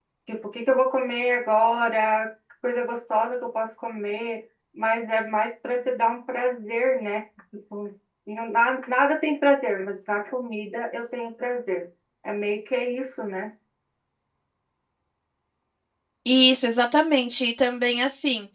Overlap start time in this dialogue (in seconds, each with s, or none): none